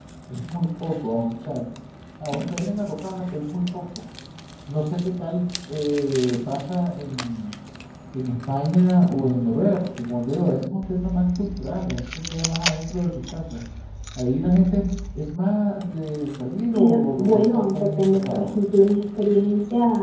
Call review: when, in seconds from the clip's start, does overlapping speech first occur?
16.7 s

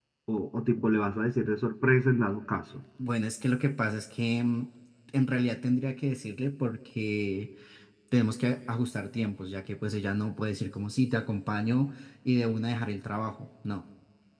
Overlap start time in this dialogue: none

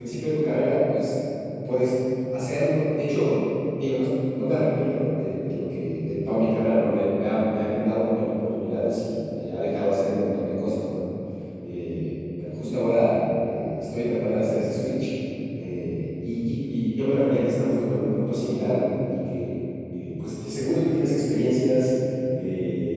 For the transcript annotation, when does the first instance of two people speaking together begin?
none

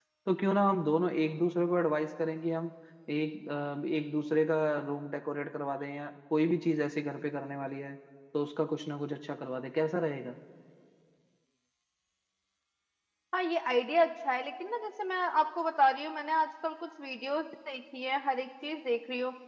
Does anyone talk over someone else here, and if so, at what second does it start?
none

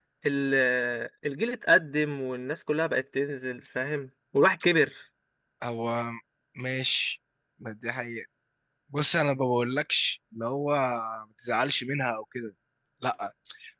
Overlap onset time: none

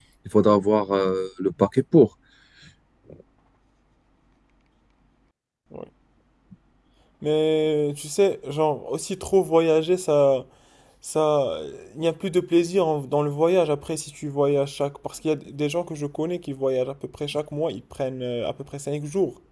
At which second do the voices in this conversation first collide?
none

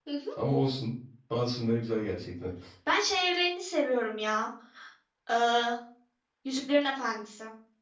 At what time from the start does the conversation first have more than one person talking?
none

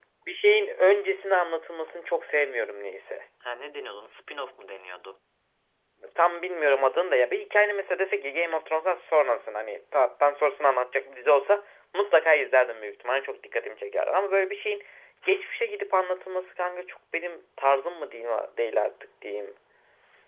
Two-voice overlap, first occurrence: none

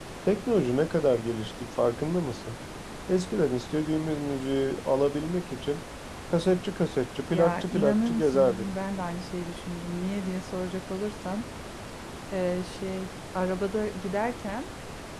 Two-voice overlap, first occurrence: 7.3 s

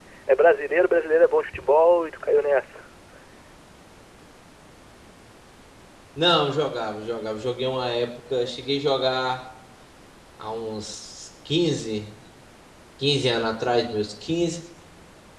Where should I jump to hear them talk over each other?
none

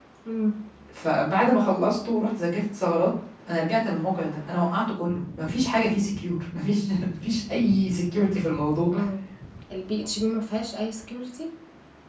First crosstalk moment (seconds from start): none

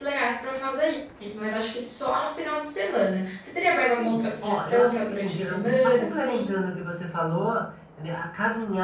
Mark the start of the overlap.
3.7 s

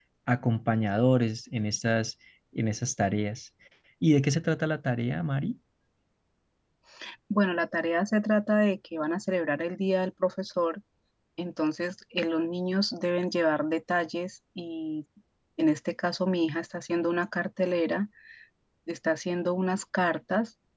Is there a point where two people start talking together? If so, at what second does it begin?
none

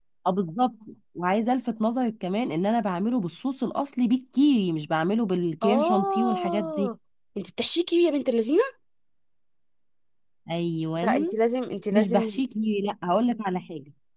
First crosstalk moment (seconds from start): 5.6 s

